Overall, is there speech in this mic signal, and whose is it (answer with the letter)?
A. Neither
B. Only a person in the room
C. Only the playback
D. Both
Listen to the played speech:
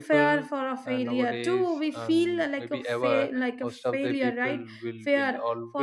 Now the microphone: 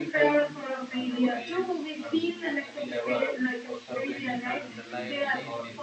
D